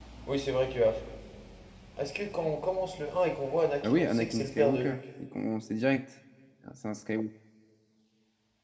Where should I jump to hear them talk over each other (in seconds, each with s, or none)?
3.8 s